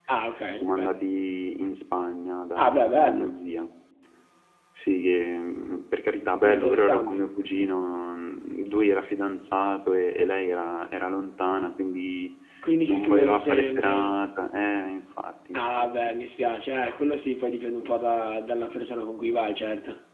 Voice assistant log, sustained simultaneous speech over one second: present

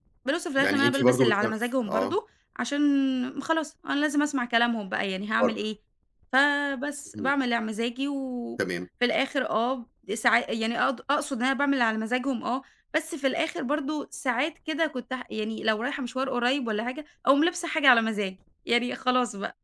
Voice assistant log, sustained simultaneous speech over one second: present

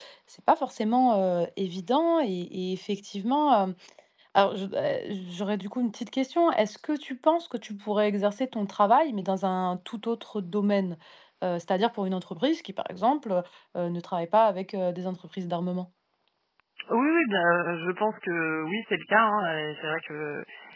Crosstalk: none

